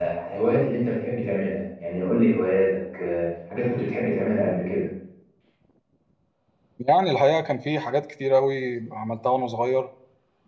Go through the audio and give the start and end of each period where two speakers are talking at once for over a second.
none

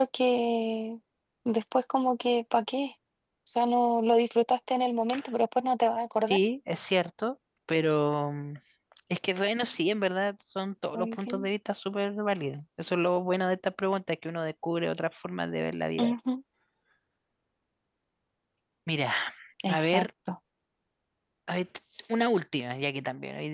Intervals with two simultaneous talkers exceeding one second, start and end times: none

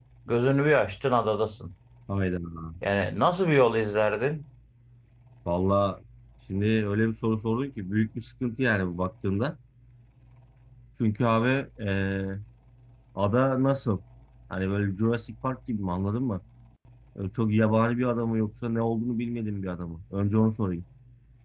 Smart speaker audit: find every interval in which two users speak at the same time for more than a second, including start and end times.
none

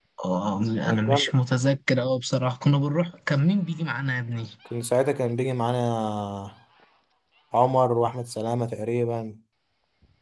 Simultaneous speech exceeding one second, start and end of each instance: none

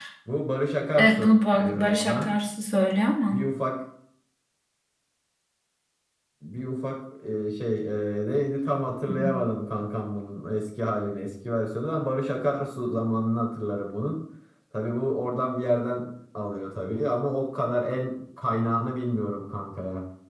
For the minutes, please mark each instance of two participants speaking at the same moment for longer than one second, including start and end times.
1.0-2.3

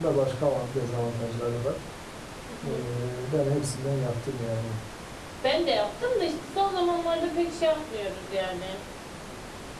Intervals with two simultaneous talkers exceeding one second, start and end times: none

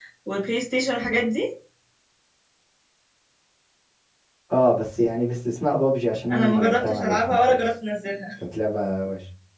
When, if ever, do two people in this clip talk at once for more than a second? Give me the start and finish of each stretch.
6.3-7.6

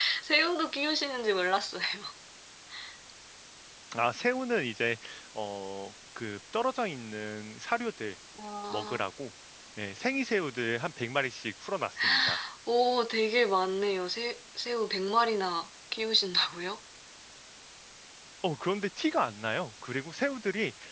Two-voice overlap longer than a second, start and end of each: none

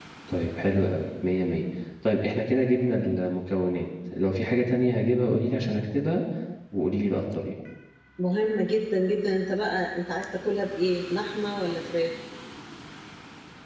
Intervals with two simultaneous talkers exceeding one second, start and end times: none

